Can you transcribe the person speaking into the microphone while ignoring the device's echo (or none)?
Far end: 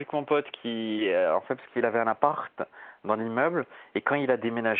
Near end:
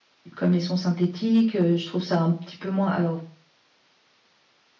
comme les sons synthétiques. euh, Je trouve ça un petit peu moins... Alors,